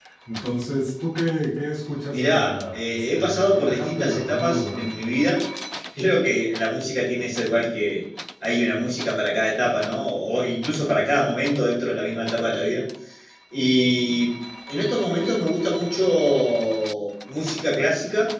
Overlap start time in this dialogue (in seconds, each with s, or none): 2.1 s